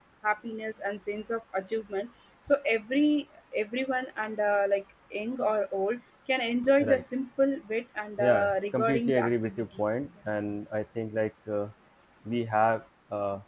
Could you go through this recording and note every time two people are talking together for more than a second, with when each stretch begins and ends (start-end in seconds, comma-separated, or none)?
8.2-9.7